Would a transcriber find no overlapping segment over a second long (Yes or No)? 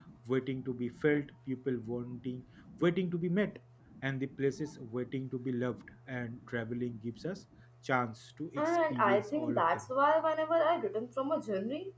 No